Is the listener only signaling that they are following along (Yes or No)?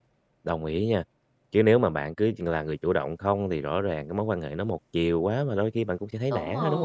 No